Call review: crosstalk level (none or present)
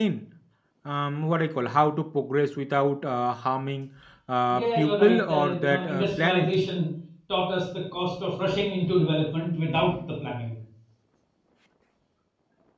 present